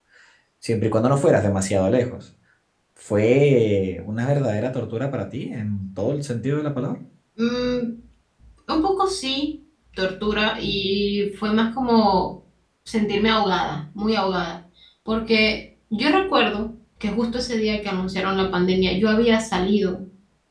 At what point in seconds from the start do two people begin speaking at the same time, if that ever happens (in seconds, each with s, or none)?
none